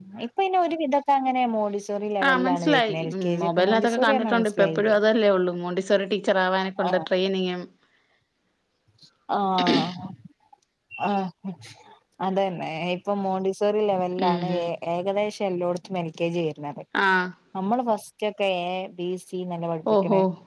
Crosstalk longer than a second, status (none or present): present